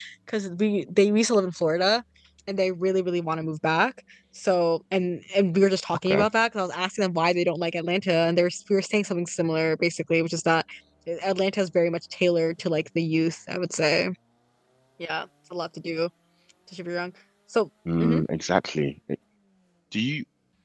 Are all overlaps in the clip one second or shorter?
Yes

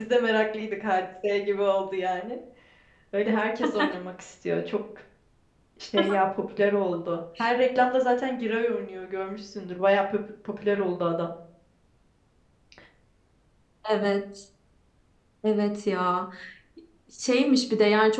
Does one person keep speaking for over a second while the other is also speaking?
No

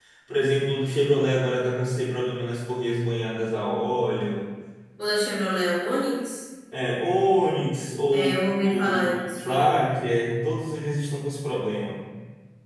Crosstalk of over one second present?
Yes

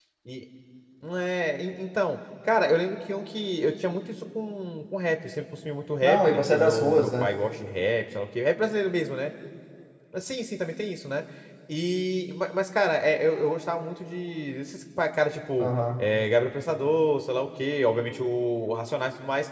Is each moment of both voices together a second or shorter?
No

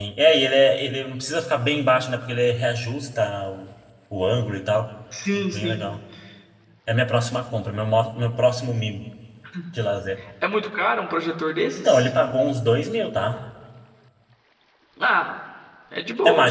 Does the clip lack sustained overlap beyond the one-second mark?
Yes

